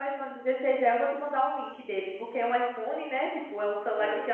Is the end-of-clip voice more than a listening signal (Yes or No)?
No